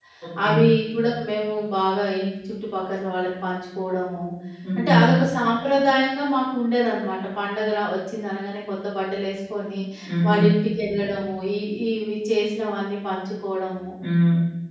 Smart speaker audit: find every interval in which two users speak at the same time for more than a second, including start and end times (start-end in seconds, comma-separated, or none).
none